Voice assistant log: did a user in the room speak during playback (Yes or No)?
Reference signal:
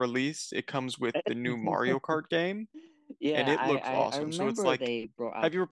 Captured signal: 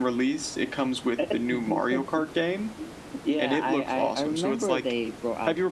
No